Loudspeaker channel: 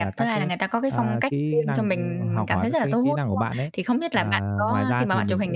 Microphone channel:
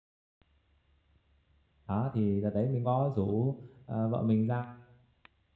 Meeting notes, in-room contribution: present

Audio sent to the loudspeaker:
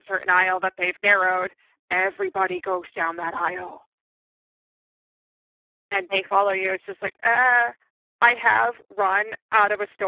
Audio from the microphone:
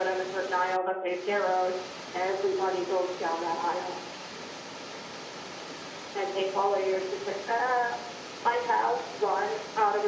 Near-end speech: none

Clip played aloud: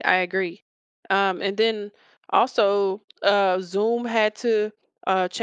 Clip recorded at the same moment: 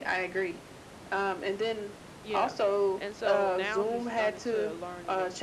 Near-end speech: present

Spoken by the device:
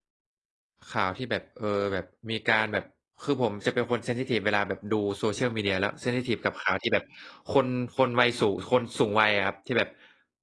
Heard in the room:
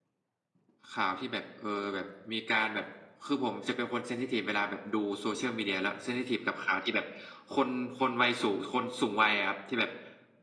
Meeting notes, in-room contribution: none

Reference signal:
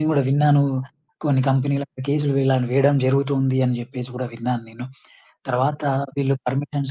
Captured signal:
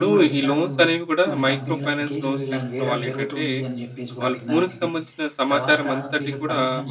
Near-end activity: present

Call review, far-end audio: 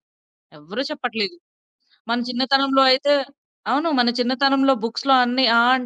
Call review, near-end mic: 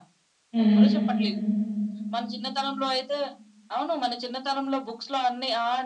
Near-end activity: present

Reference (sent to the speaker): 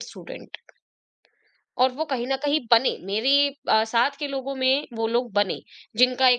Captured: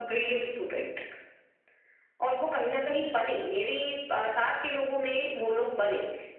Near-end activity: none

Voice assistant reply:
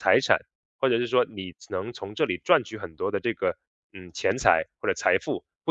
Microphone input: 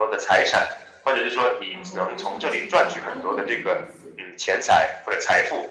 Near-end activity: present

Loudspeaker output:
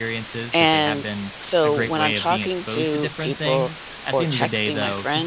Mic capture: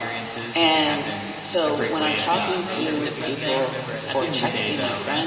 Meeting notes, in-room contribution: present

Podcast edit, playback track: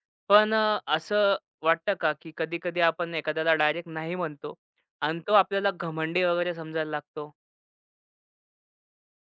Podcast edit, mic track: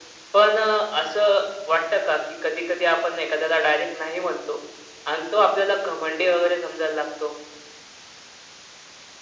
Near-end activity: none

